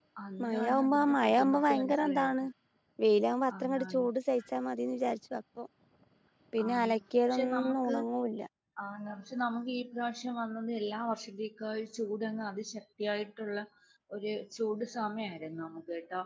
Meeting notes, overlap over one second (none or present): present